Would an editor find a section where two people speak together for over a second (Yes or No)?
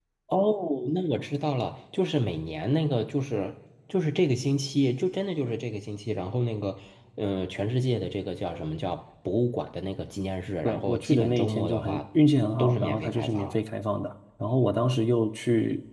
Yes